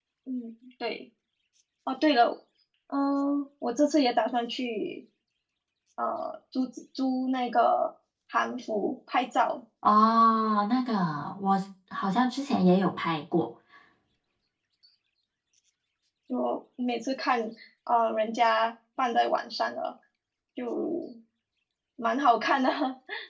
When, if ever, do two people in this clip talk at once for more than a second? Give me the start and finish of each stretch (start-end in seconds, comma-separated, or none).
none